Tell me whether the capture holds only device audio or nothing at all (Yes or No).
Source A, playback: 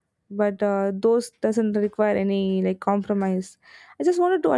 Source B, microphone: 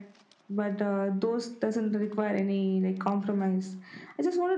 Yes